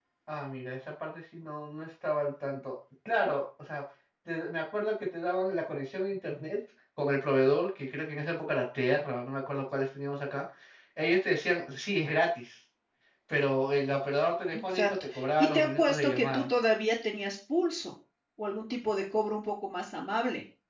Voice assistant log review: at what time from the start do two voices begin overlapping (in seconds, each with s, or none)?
14.5 s